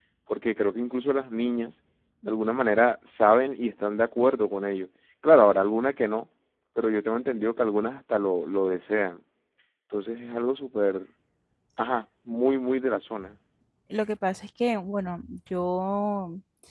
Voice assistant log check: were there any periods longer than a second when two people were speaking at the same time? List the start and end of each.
none

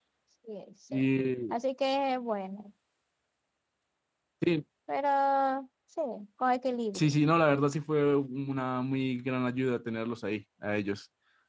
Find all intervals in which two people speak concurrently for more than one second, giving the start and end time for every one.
none

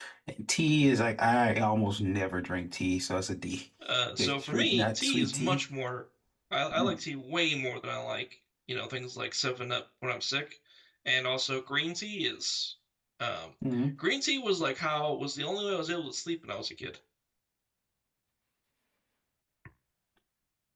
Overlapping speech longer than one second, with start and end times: 4.2-5.6

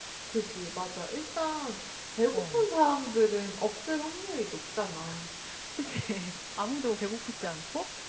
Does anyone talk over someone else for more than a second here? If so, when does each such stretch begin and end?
none

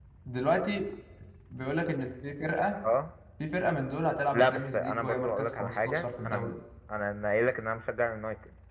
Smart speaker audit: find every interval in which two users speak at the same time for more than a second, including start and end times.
4.3-6.6

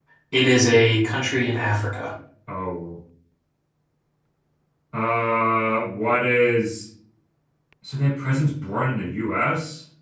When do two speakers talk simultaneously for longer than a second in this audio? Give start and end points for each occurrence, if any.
none

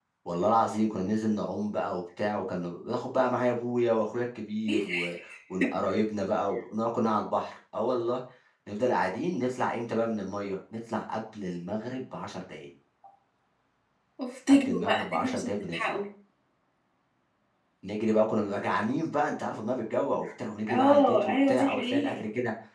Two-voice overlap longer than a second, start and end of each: 14.5-16.0, 20.7-22.2

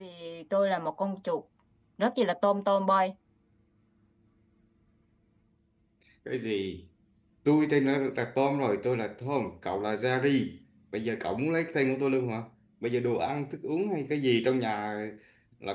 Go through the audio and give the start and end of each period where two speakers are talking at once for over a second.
none

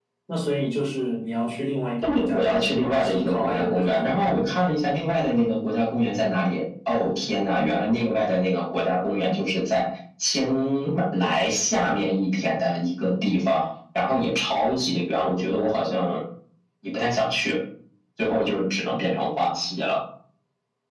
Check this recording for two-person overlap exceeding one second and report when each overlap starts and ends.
2.0-4.3

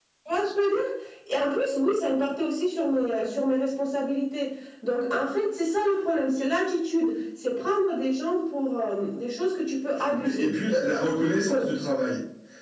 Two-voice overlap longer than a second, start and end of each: none

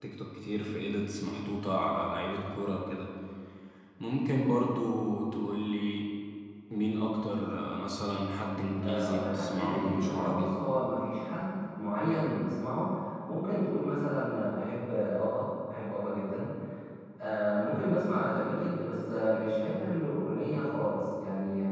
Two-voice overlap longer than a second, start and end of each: 8.8-10.5

